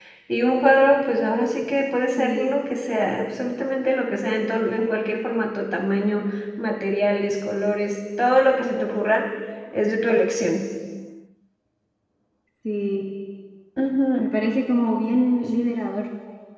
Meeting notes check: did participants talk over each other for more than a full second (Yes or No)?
No